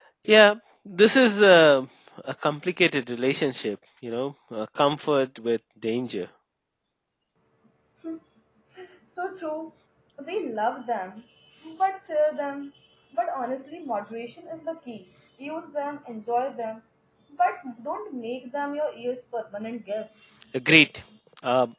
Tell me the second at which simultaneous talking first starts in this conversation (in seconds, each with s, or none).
none